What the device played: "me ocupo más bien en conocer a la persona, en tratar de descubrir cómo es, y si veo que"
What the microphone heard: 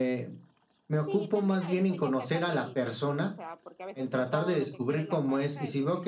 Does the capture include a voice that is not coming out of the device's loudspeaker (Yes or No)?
Yes